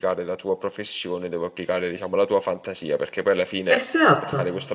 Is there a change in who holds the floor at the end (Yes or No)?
No